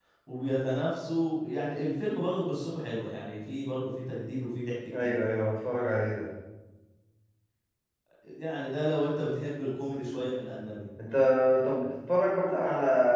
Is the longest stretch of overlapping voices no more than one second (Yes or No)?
Yes